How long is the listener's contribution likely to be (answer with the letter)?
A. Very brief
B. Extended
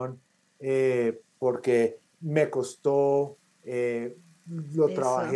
A